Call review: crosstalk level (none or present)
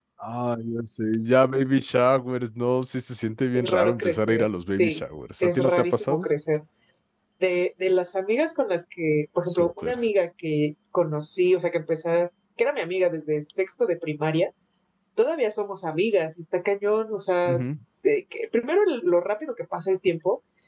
present